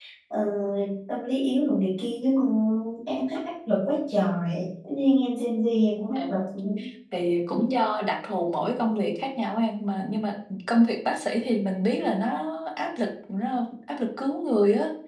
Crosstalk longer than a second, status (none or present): none